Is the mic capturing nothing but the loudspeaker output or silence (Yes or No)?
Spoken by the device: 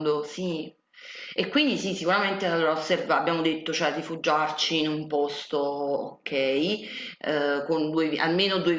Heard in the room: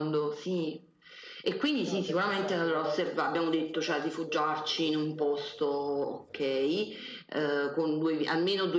No